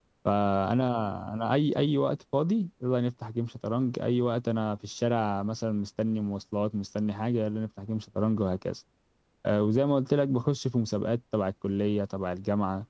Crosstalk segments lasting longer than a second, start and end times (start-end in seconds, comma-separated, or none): none